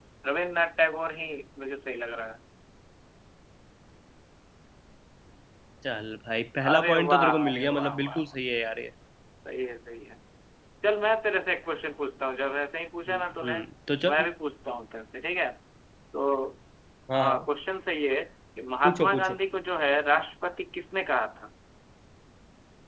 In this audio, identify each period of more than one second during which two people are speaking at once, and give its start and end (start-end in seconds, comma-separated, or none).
6.7-8.2